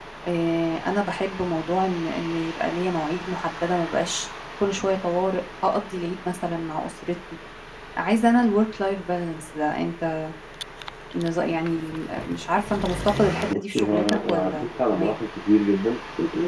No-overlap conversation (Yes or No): No